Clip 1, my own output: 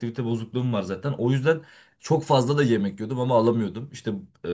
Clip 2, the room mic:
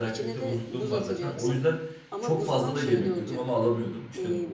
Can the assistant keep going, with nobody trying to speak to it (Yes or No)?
No